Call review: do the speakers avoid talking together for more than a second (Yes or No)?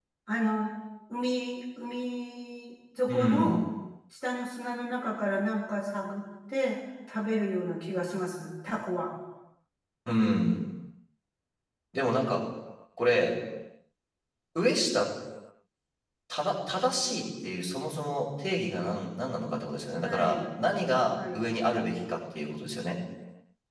Yes